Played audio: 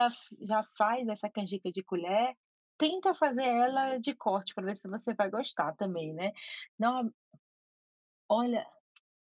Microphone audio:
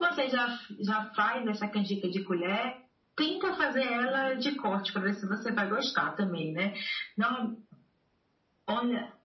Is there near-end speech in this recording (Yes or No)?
No